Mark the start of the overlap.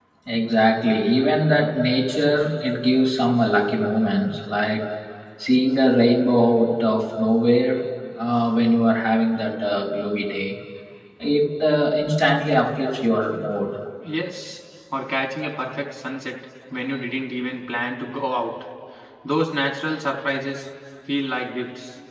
none

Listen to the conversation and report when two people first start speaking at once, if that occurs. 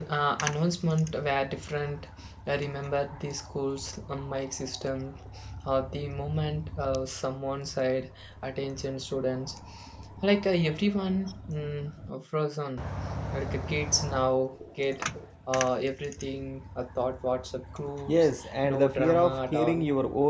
18.1 s

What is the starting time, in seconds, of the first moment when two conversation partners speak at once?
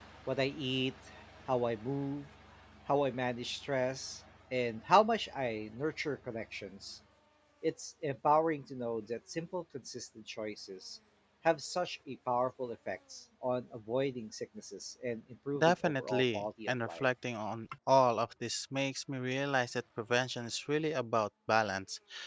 15.6 s

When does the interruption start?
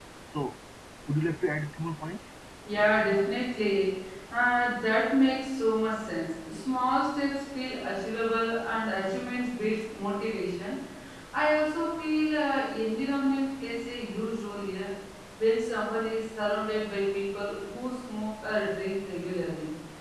none

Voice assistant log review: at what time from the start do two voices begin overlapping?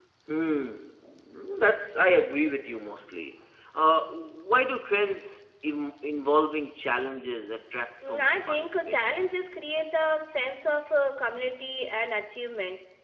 8.0 s

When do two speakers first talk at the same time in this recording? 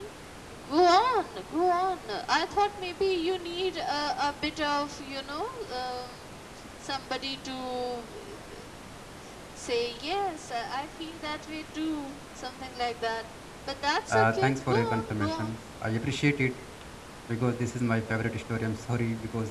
14.1 s

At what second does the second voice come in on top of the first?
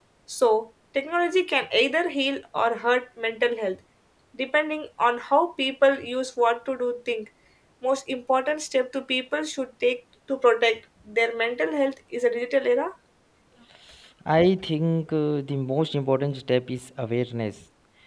none

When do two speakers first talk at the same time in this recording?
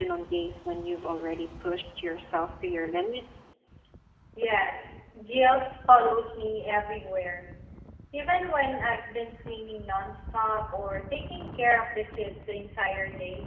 none

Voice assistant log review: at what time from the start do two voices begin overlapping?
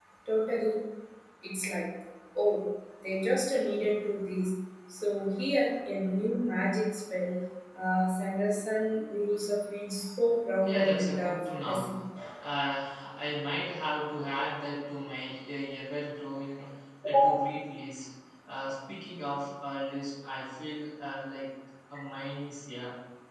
10.7 s

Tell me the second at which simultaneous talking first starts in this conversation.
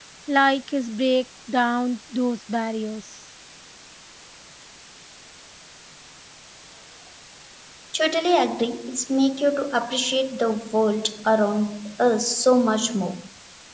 none

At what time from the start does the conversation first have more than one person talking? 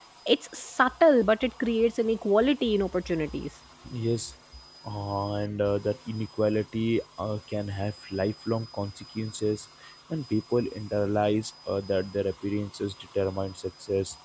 none

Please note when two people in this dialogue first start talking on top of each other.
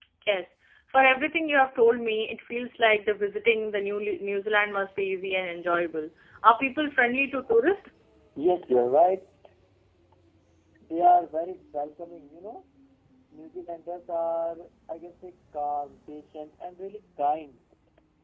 none

